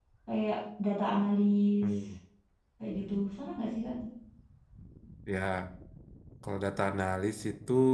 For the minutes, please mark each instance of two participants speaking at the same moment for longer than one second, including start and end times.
none

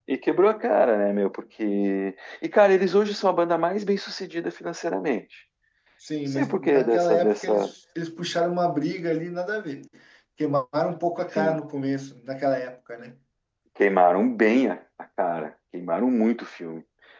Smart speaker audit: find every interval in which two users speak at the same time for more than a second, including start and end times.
6.3-7.7

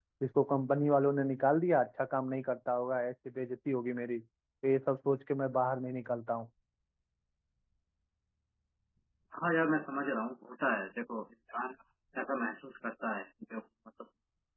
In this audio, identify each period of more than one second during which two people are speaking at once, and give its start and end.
none

